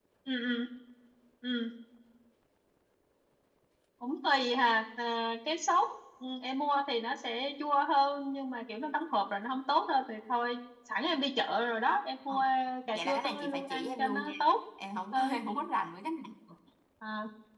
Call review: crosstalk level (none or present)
present